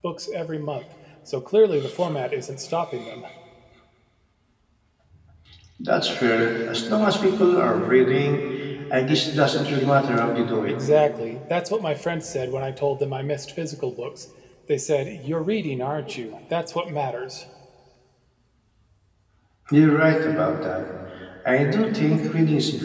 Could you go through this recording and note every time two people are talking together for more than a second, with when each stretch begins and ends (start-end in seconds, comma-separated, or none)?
none